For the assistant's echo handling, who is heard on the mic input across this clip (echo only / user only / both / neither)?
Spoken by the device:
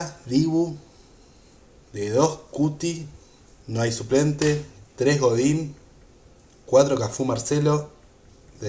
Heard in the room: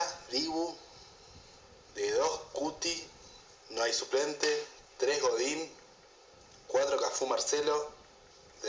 echo only